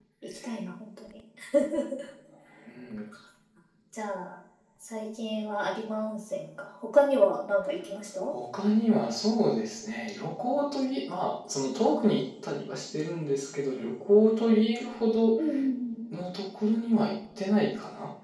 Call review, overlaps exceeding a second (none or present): none